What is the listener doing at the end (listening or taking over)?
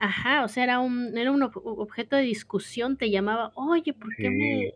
listening